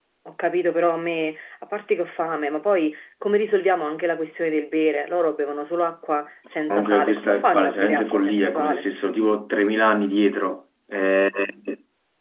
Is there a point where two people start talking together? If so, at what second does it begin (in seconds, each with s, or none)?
6.7 s